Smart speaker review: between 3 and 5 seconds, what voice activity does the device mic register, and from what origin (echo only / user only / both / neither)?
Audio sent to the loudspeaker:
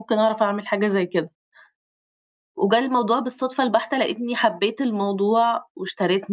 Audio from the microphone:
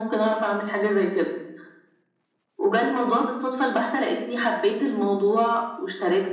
echo only